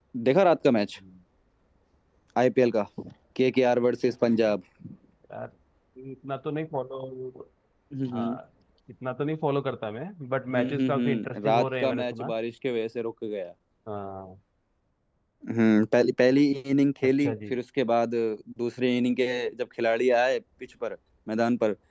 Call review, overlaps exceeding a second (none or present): present